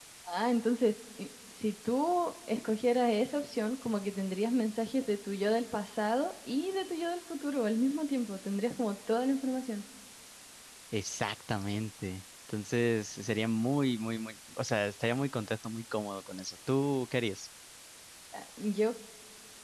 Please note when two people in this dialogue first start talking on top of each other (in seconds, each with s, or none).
none